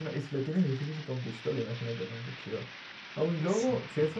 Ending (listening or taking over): listening